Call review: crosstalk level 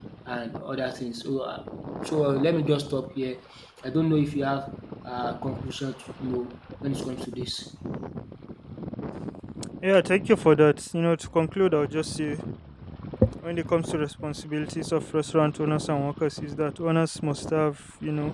none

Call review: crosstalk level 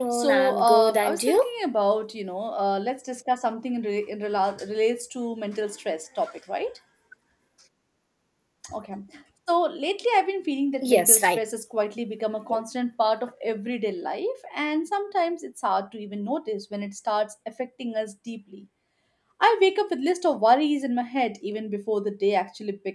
present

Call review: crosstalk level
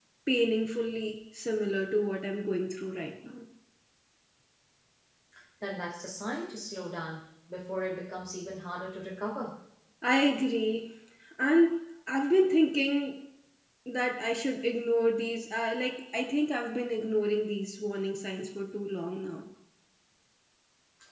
none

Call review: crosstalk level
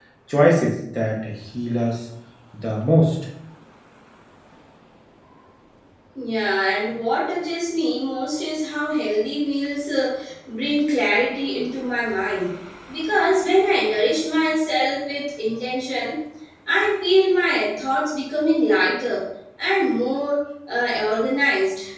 none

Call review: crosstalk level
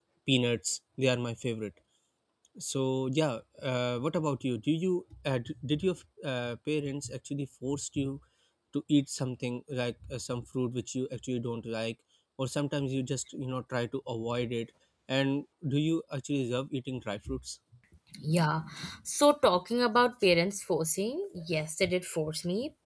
none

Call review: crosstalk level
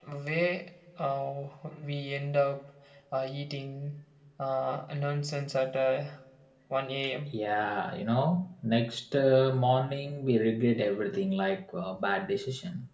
none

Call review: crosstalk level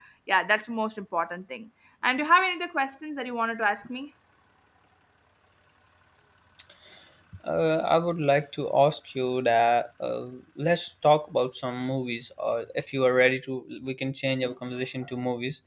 none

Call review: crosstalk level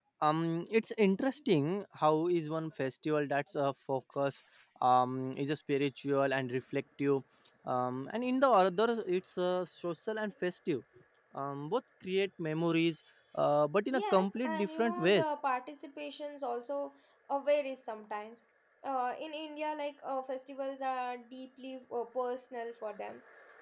present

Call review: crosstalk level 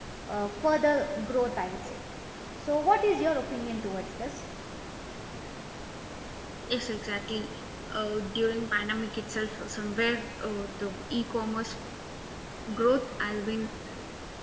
none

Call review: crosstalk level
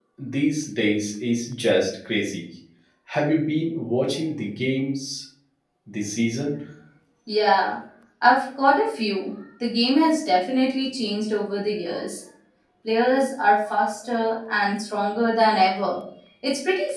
none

